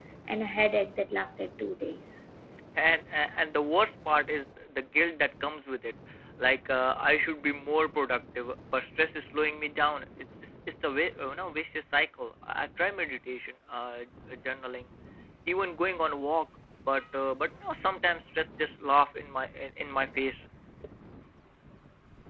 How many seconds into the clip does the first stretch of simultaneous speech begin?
none

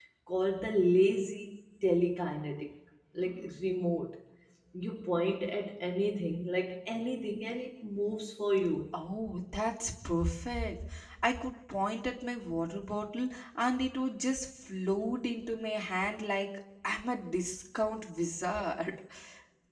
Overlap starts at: none

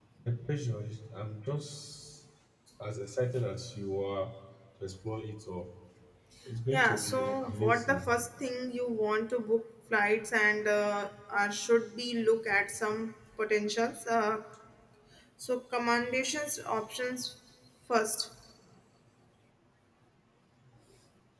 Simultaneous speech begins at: 6.7 s

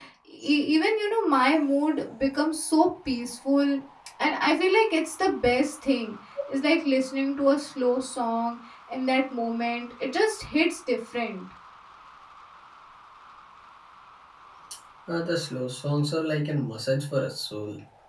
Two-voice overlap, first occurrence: none

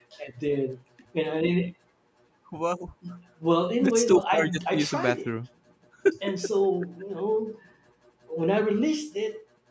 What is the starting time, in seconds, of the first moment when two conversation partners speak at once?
3.8 s

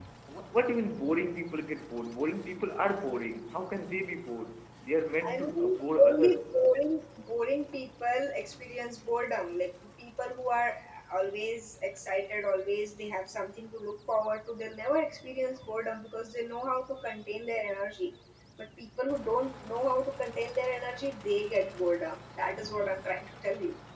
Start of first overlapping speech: 5.2 s

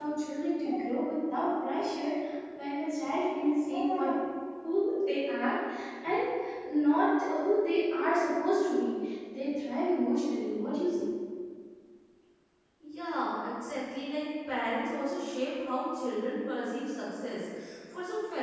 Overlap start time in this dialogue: none

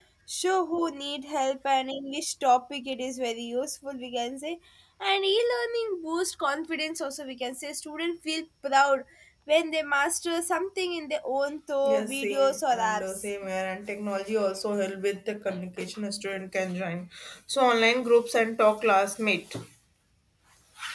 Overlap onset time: 11.8 s

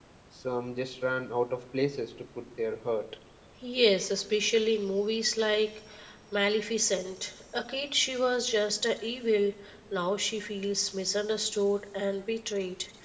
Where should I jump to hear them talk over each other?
none

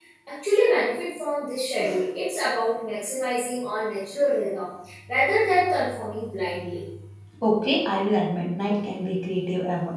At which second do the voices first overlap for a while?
none

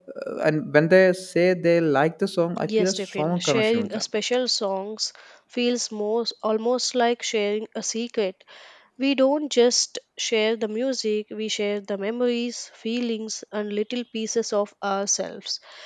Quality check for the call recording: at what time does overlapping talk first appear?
2.6 s

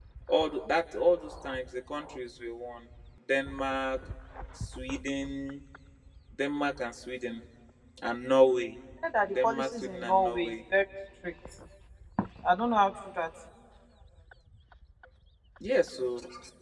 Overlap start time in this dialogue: 9.3 s

